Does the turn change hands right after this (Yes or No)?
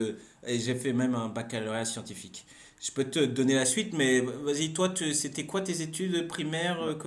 Yes